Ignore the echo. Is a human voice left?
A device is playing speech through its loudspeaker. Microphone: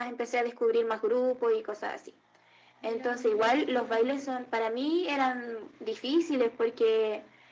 Yes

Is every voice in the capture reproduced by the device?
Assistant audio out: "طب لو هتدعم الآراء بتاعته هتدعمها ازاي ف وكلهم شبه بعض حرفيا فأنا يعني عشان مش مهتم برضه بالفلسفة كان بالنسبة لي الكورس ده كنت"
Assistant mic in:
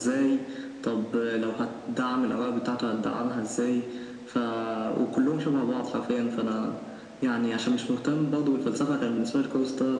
Yes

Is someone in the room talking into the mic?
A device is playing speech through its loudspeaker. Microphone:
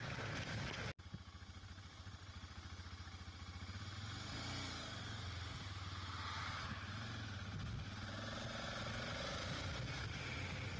No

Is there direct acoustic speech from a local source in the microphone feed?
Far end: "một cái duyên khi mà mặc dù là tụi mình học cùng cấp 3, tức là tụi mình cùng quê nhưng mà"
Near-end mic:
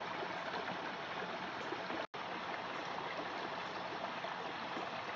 No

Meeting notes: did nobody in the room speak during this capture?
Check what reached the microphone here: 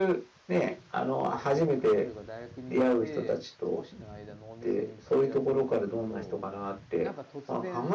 No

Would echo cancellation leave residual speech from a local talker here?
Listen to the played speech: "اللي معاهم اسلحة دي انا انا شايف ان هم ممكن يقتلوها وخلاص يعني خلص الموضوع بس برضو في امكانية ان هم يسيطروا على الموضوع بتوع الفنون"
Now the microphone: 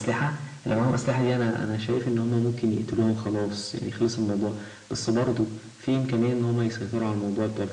No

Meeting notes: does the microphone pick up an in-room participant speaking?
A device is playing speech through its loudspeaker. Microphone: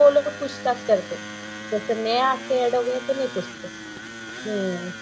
Yes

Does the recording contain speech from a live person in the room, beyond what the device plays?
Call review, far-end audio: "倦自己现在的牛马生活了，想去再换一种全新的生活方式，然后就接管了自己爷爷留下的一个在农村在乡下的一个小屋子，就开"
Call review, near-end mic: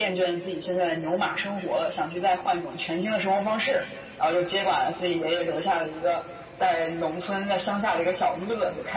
No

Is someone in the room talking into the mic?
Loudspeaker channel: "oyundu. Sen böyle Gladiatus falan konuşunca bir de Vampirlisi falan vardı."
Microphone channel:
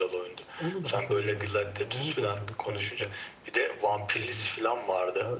Yes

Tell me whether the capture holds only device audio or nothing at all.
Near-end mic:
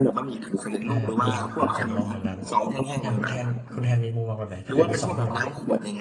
No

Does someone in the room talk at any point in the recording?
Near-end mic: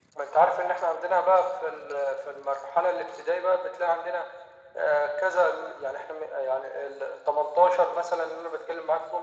No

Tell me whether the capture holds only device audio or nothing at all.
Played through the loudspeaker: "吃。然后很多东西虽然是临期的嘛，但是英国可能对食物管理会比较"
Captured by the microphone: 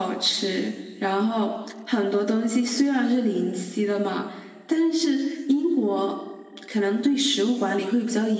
Yes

